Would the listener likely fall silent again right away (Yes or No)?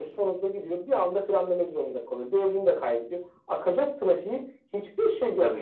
Yes